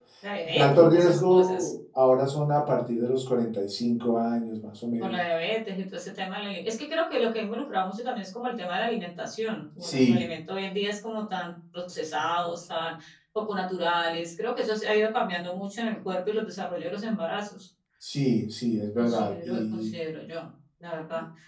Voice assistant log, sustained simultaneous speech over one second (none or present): present